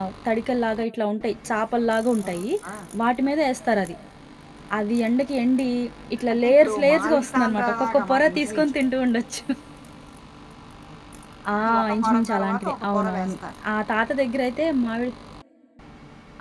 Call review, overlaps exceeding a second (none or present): present